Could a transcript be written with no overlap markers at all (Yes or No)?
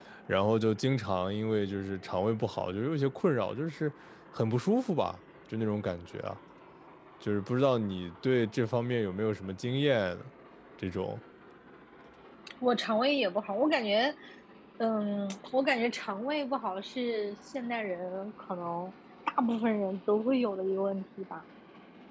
Yes